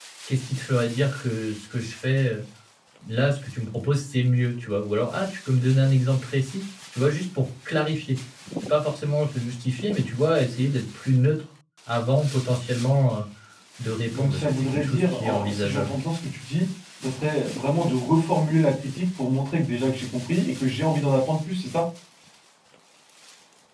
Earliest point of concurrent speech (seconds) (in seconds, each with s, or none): 14.1 s